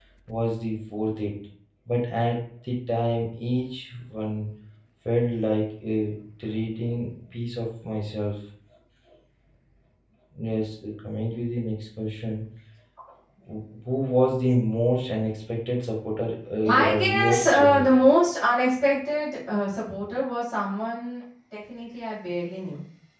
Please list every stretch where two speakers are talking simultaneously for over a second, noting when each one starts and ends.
16.6-17.9

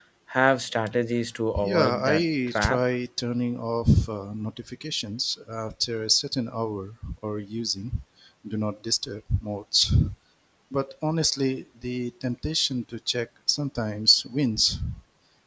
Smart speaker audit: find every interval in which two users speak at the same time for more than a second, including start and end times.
1.6-2.8

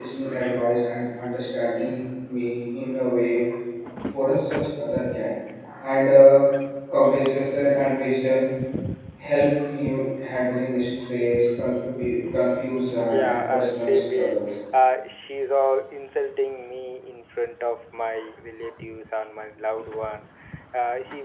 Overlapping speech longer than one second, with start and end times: 13.1-14.4

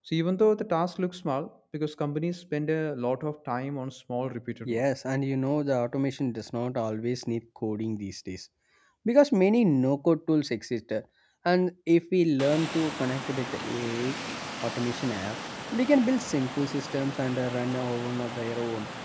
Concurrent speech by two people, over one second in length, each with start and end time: none

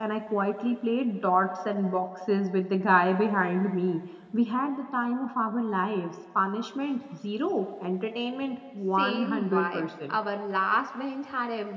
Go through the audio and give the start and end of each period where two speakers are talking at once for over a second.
8.9-10.2

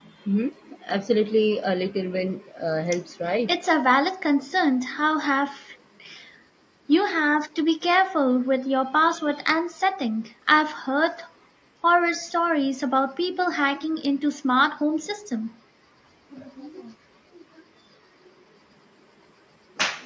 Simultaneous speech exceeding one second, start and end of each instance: none

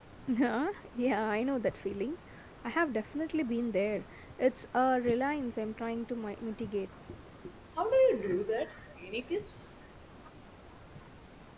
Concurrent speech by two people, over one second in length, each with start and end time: none

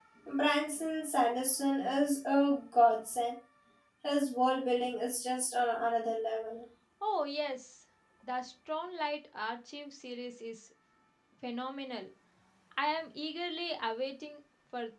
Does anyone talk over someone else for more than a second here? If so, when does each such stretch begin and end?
none

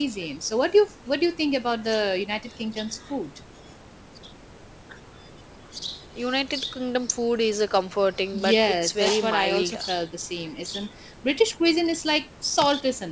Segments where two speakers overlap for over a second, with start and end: 8.3-9.8

